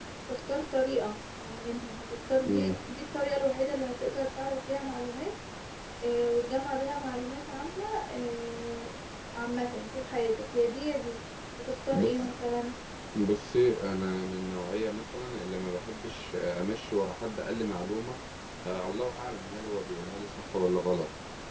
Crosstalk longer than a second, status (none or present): none